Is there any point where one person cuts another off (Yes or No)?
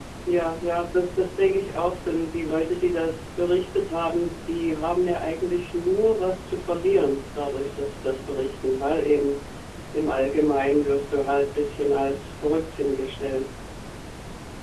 No